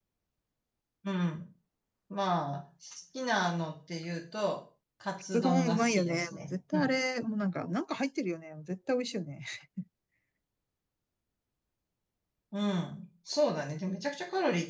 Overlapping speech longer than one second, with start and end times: 5.3-6.9

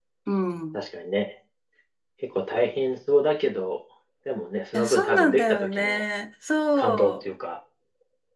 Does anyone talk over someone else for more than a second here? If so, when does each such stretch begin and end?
4.7-6.0

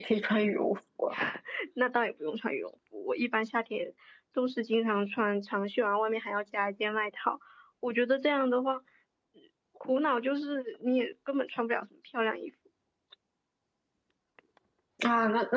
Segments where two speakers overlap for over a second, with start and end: none

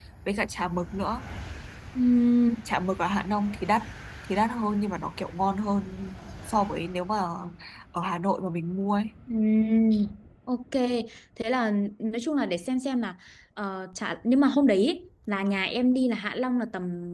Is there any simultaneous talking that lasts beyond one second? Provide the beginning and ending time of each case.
none

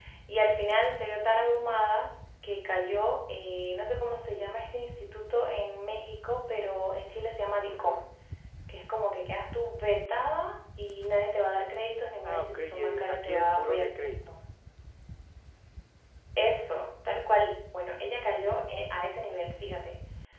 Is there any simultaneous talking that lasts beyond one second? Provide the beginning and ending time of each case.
12.2-14.1

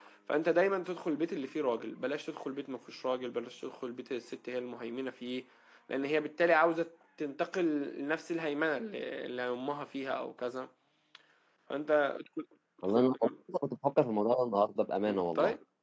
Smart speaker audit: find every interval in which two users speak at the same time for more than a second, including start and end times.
none

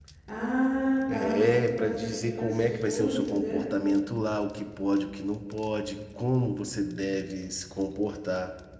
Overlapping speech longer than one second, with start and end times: 1.1-3.7

